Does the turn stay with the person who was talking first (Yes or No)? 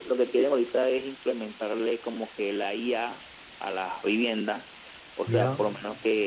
Yes